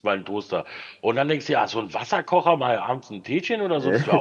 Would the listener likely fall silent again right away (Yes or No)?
Yes